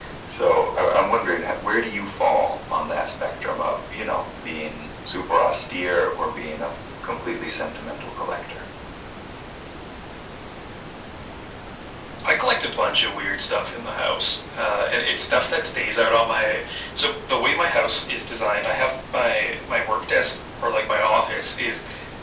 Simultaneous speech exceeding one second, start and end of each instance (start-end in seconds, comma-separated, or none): none